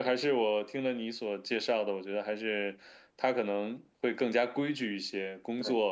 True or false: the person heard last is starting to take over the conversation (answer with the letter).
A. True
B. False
B